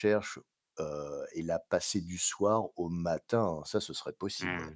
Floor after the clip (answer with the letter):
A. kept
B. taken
B